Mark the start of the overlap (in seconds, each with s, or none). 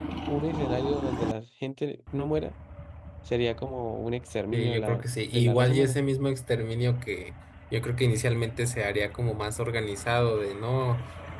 4.5 s